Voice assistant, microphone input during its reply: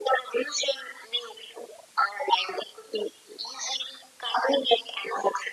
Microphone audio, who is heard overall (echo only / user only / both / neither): echo only